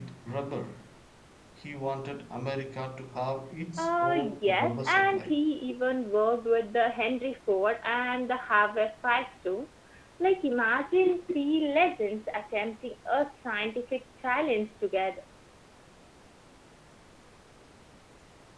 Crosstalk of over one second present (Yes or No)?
Yes